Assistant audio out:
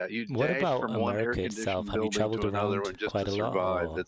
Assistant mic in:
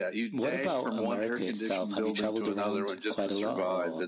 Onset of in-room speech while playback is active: none

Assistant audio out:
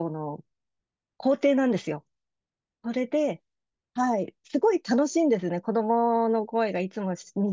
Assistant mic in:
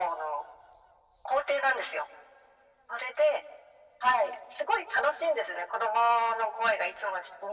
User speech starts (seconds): none

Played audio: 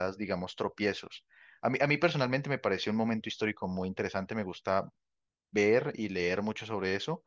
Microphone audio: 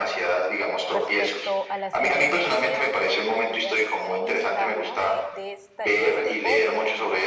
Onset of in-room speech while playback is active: 1 s

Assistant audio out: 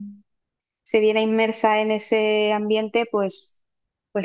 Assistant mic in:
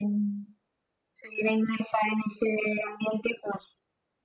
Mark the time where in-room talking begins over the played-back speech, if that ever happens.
none

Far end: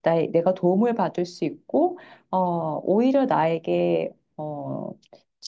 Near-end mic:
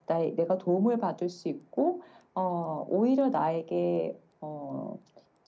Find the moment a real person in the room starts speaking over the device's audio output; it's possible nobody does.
none

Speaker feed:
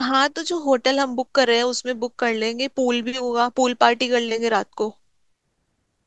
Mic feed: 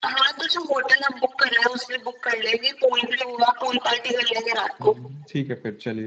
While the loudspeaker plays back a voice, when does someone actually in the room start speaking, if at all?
5 s

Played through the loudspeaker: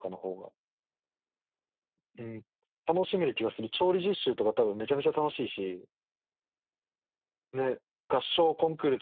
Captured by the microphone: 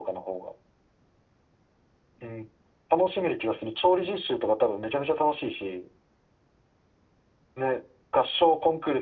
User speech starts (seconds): none

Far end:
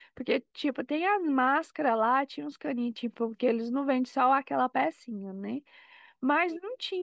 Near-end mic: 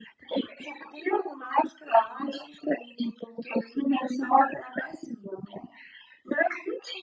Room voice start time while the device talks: none

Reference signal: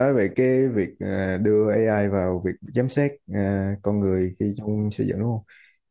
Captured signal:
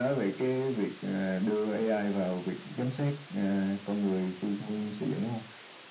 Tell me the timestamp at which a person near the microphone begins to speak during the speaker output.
none

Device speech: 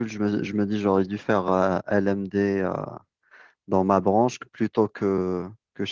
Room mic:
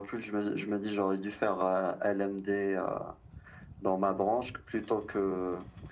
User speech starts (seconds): none

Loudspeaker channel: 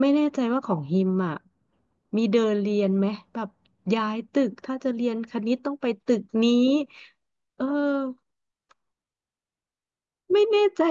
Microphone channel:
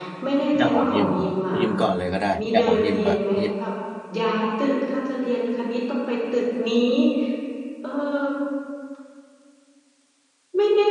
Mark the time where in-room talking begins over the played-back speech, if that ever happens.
1 s

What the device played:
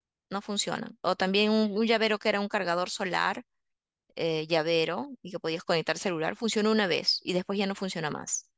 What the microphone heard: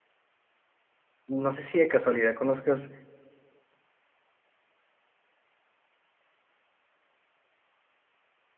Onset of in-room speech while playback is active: 1 s

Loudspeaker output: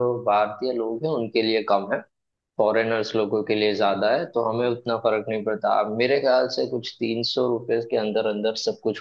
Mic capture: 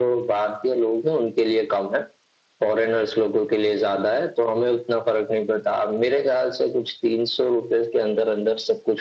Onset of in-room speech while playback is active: none

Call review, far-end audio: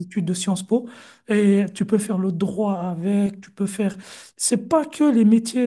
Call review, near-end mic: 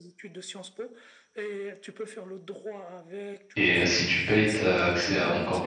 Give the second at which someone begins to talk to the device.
4 s

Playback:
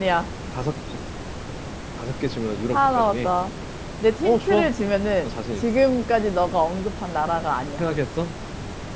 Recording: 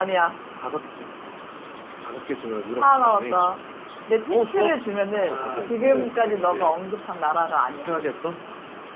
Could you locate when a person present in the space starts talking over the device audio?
5 s

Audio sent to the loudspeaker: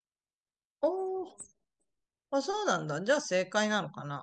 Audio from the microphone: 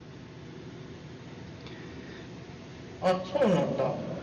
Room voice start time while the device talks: 3 s

